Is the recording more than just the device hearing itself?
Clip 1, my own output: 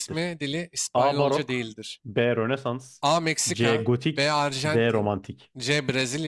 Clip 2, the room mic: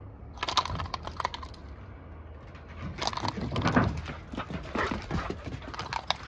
No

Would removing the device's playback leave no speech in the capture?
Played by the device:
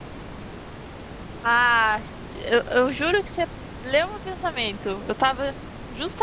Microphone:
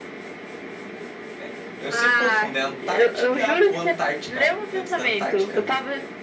No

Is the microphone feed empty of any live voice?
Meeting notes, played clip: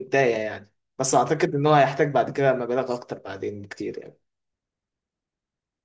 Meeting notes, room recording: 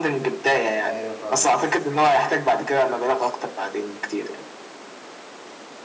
No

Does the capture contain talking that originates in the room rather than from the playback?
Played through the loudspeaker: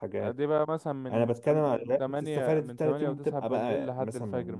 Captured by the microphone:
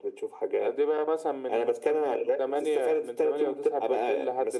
No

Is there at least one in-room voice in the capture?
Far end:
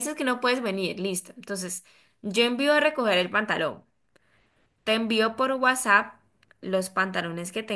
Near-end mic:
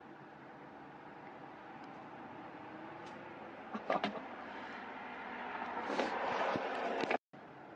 No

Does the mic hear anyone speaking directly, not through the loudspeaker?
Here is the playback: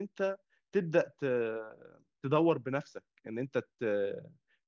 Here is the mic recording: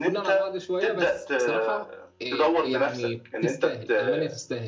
Yes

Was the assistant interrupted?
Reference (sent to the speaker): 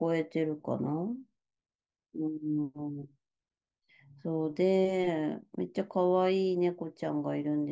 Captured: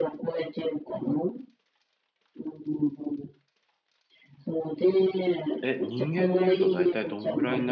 Yes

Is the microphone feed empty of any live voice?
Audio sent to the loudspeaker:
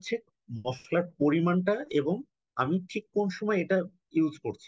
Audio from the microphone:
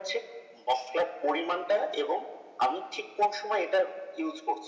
Yes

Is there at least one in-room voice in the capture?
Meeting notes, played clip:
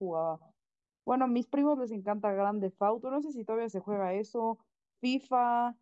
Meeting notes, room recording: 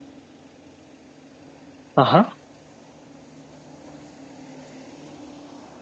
Yes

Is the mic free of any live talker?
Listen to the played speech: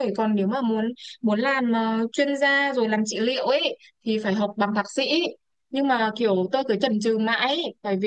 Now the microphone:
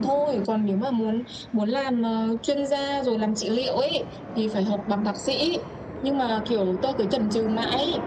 Yes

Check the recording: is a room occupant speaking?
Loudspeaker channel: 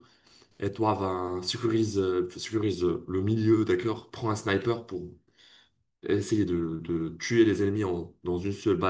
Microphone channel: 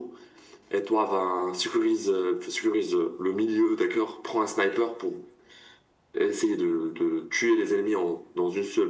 No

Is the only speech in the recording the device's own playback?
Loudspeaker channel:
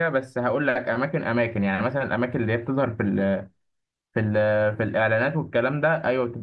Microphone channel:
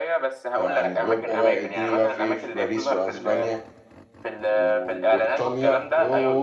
No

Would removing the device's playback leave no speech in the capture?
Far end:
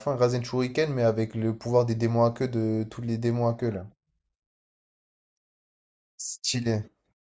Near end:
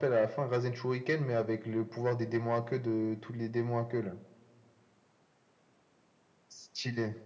Yes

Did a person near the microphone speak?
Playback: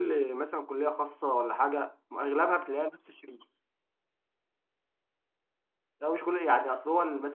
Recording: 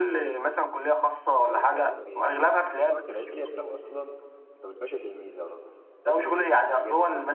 Yes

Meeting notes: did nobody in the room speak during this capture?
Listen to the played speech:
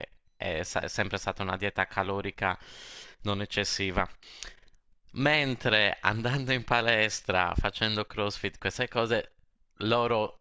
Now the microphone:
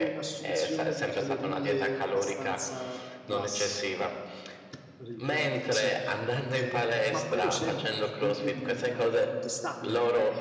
No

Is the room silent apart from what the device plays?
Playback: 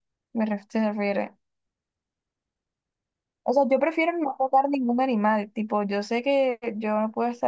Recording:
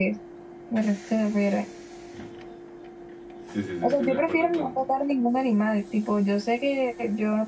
No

